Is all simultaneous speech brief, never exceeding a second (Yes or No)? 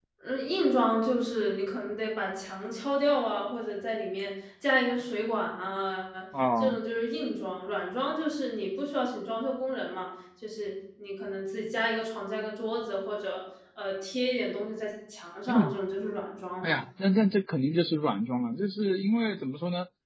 Yes